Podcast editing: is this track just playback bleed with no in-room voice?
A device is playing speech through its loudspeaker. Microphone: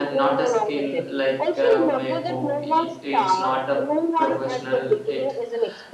No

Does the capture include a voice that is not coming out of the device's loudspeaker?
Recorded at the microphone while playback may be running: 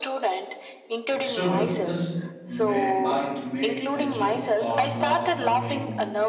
Yes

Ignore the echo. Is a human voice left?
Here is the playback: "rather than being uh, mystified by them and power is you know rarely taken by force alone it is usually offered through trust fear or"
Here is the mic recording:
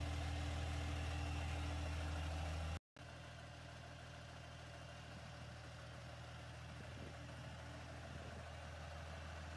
No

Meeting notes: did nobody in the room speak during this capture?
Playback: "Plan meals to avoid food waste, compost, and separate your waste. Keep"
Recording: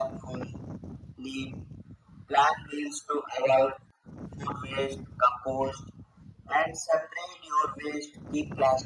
Yes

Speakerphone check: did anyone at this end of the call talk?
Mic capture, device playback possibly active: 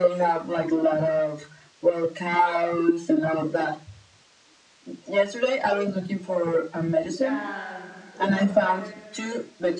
Yes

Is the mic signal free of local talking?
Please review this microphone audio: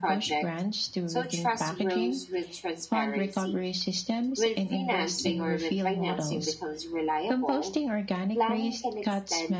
No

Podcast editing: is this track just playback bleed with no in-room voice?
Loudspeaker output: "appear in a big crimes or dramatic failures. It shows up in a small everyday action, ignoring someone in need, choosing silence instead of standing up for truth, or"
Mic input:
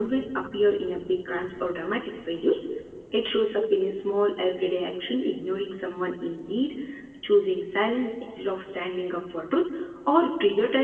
Yes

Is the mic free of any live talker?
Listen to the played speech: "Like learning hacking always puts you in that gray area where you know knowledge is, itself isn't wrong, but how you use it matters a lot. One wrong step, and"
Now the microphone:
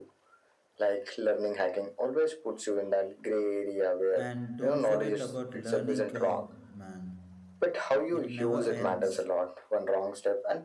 No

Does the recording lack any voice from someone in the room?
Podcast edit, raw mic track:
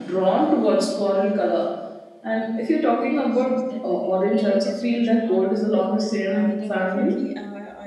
No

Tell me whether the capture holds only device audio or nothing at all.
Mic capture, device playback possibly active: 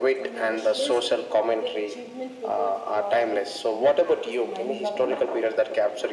No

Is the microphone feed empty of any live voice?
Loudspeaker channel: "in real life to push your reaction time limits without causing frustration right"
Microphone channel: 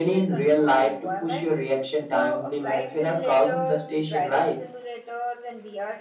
No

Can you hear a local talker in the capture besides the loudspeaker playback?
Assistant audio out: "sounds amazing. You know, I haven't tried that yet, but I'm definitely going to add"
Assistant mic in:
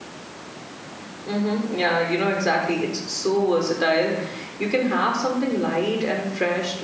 Yes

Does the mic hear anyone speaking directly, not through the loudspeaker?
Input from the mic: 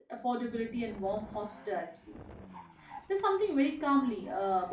Yes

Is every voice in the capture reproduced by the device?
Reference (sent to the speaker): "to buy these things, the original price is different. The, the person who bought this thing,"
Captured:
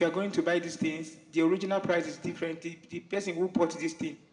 Yes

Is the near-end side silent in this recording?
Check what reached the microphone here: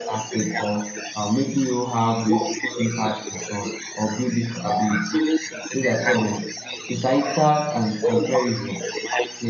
No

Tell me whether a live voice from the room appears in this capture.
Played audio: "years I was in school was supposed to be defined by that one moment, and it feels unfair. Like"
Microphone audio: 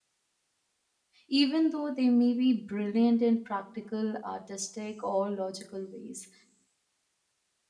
Yes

